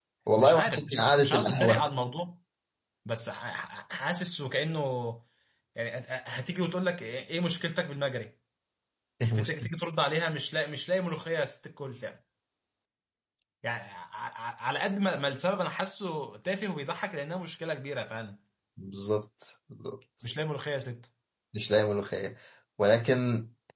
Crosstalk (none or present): present